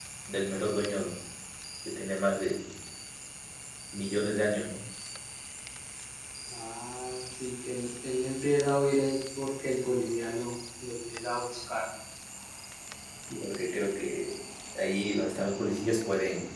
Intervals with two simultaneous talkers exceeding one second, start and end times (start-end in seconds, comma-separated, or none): none